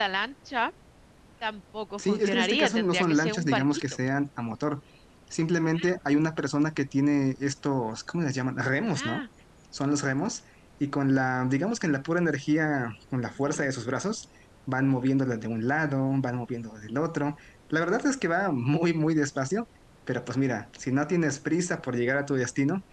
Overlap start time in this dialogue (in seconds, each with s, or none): 2.0 s